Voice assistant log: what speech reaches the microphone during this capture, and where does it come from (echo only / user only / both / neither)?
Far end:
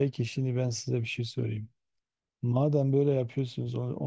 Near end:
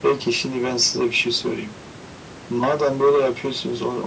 echo only